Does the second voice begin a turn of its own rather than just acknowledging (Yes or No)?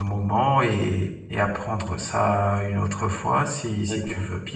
Yes